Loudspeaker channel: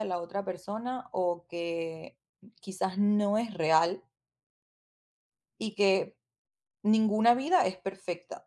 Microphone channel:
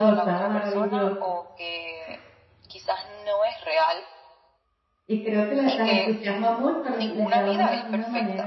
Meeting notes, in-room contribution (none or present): present